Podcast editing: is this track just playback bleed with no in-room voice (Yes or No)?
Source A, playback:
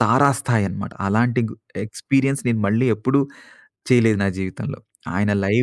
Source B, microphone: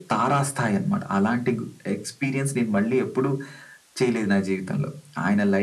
Yes